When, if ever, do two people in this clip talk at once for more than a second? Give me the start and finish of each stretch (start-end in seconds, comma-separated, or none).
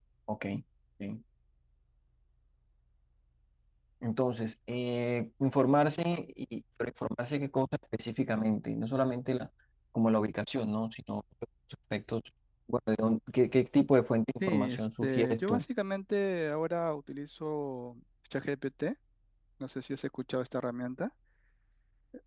14.4-15.6